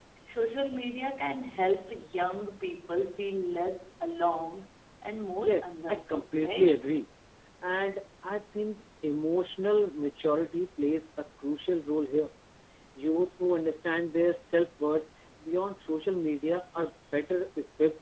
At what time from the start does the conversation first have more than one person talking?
5.4 s

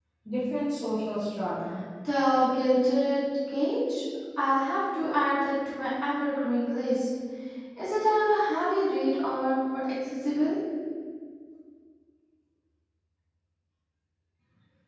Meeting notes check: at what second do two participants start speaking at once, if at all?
none

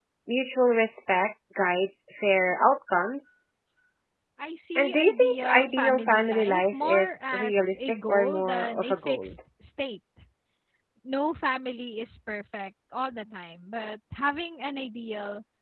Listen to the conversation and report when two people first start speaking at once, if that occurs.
4.8 s

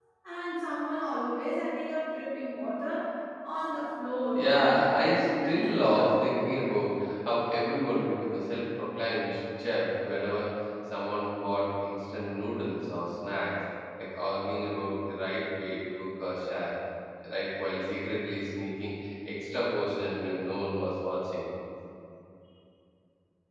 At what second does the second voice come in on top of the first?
4.3 s

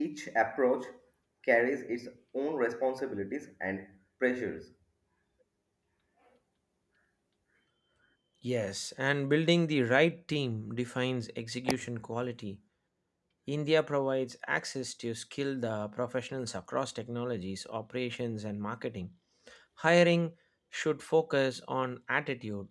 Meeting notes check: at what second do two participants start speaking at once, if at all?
none

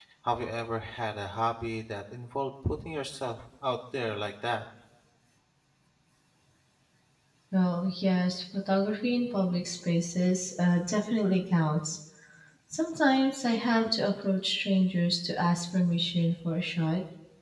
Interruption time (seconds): none

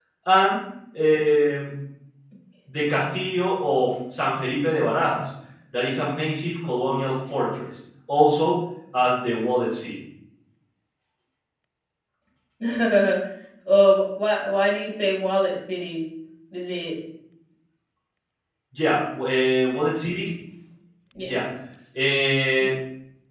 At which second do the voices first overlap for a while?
none

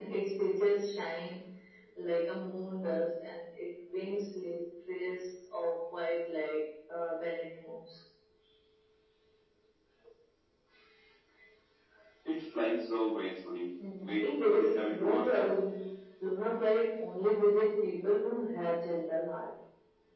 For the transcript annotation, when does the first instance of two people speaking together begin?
13.8 s

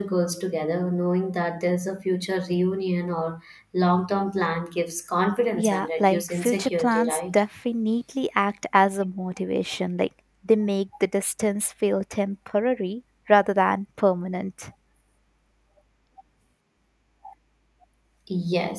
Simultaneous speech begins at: 5.6 s

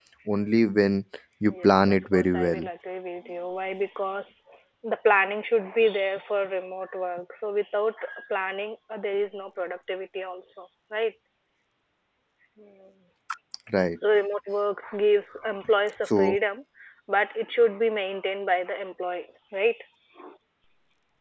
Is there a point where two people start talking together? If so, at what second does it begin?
1.4 s

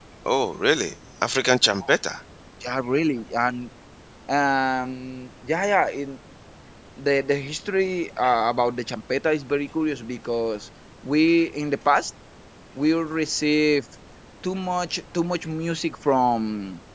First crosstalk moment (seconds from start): none

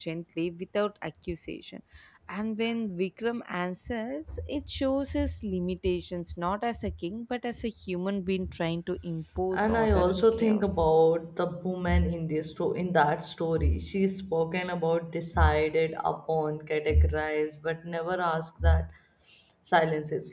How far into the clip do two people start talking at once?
9.5 s

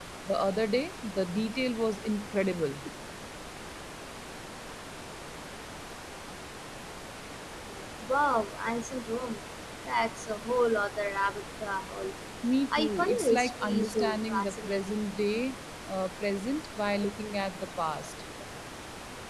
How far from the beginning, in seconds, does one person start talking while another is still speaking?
12.7 s

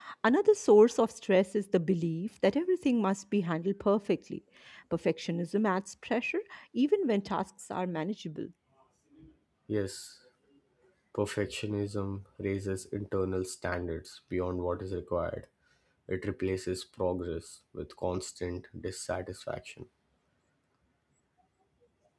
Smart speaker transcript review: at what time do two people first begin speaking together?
none

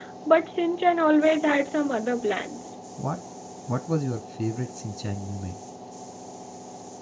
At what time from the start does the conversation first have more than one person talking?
none

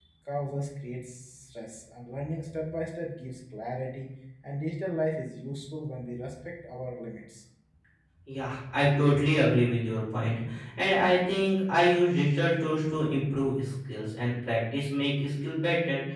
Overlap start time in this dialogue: none

